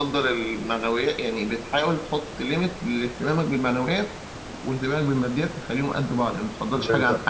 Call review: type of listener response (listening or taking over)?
taking over